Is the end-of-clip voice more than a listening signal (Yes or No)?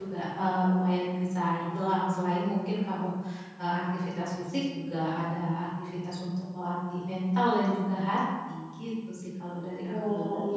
Yes